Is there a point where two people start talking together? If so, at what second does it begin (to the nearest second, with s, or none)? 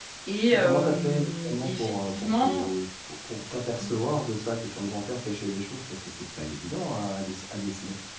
1 s